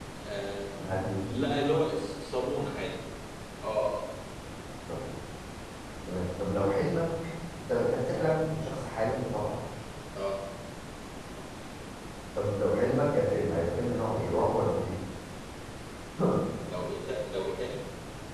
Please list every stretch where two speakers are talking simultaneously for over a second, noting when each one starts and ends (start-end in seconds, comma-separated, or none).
none